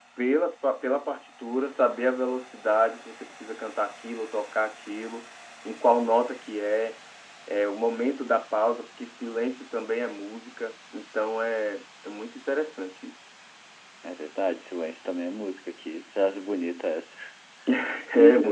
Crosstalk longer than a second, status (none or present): none